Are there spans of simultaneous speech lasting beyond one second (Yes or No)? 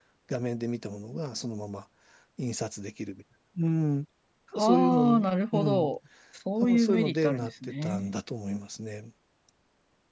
Yes